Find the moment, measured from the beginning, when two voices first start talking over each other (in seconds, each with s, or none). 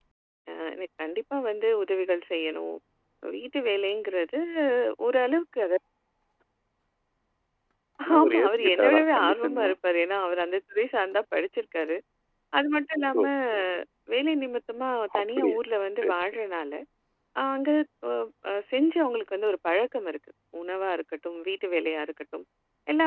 8.2 s